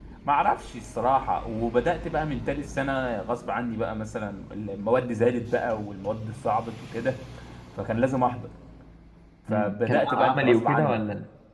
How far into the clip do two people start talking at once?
9.5 s

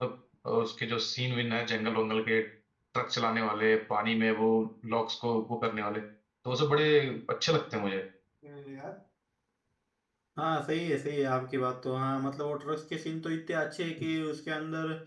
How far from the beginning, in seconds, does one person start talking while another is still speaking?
none

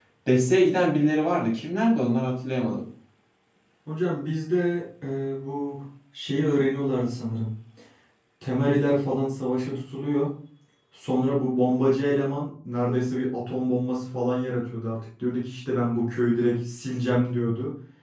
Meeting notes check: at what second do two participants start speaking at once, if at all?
none

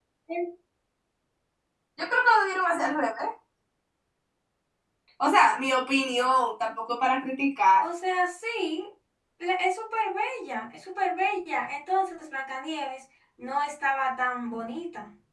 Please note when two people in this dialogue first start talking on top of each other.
none

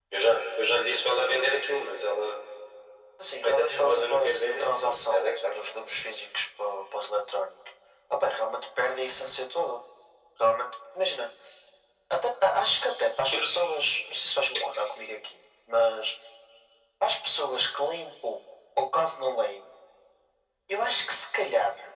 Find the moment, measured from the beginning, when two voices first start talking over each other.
3.4 s

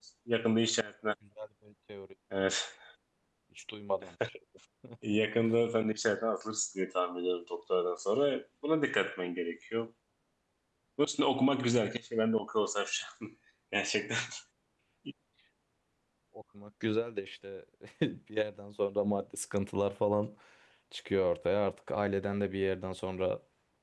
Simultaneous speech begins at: none

